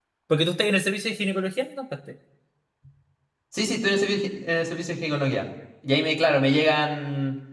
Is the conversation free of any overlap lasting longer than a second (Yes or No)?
Yes